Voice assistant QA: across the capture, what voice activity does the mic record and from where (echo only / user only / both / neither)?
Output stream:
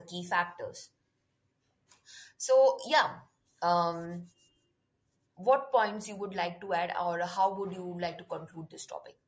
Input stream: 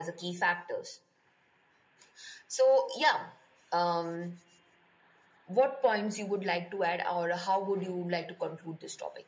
echo only